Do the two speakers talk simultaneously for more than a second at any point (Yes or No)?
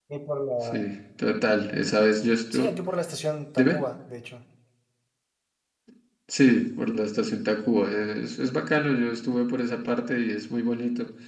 No